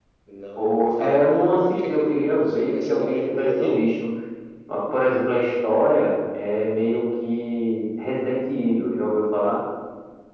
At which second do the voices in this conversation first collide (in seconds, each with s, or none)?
0.6 s